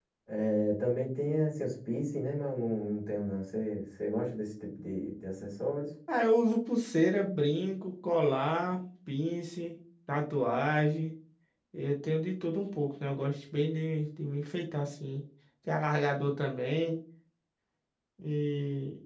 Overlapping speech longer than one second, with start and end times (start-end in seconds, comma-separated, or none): none